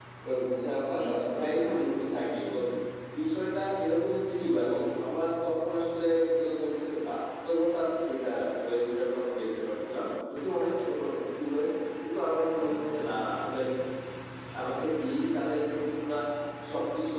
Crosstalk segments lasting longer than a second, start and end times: 1.0-2.5

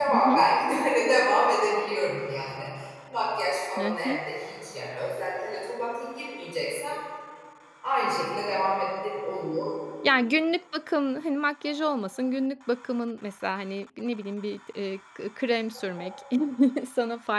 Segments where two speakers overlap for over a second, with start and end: none

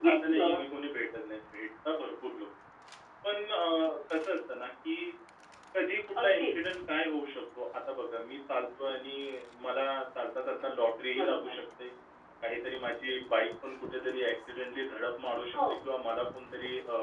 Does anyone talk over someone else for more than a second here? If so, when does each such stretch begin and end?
none

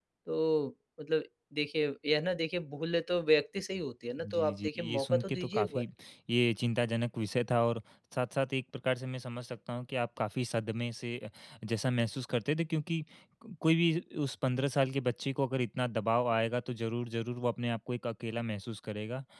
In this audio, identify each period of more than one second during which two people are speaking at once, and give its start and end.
4.2-5.8

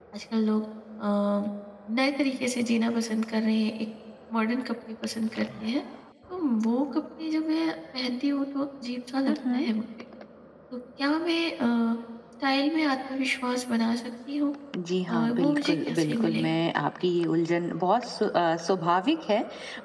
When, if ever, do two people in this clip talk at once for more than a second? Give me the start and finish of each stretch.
15.1-16.5

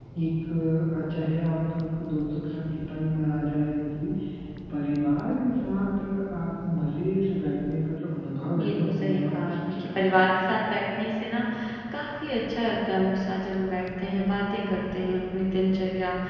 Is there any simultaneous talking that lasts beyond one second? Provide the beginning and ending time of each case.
8.6-10.2

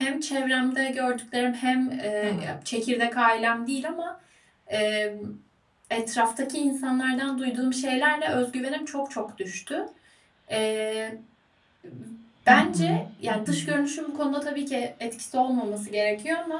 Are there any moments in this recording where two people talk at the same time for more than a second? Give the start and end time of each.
12.5-13.7

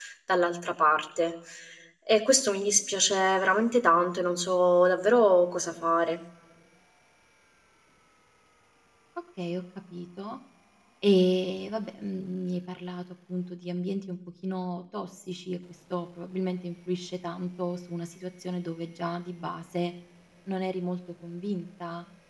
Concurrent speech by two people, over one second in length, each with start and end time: none

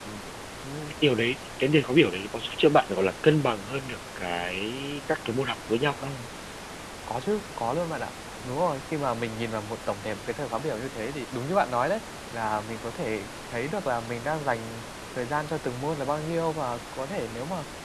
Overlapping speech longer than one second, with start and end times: none

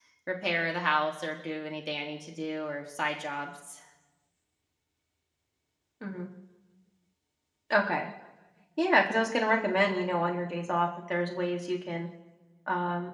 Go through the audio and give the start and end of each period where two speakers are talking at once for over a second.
none

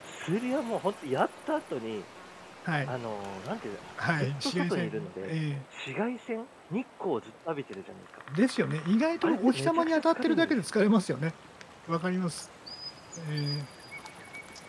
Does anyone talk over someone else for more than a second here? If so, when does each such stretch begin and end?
4.1-5.3, 9.2-10.7

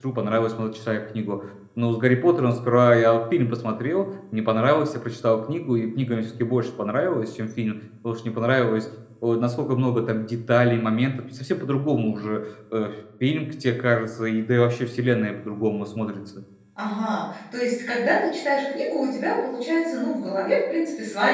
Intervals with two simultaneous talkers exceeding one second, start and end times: none

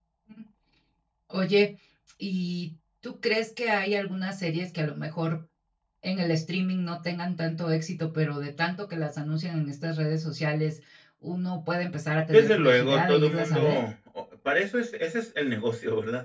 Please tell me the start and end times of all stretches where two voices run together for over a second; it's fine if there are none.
12.3-13.8

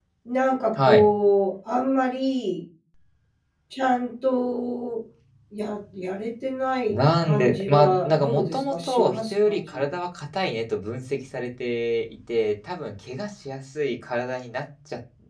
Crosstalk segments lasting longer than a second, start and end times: 6.9-9.8

